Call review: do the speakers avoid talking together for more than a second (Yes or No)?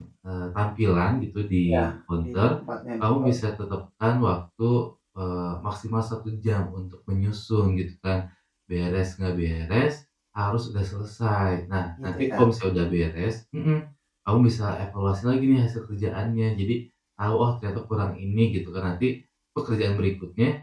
Yes